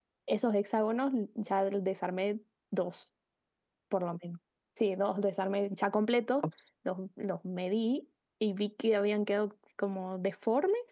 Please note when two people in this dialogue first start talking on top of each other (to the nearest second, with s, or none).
none